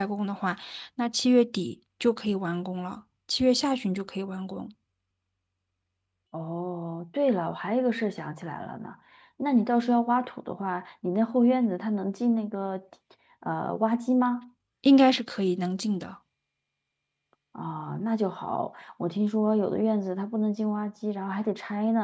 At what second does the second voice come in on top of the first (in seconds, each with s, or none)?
none